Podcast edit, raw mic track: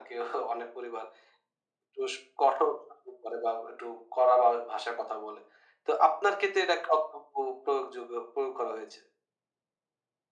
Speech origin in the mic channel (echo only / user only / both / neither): echo only